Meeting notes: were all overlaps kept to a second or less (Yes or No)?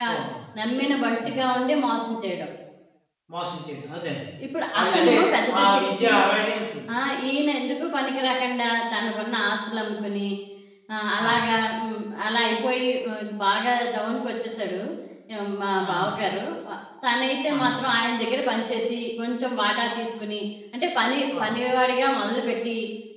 Yes